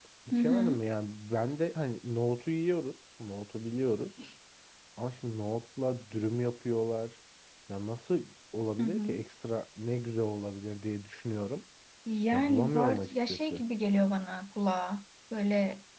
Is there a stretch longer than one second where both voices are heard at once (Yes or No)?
Yes